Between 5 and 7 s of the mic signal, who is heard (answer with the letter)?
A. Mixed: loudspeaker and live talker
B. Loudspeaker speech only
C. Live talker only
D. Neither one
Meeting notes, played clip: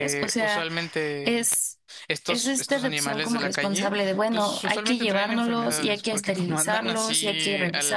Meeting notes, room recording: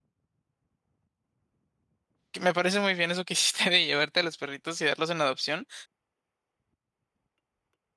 C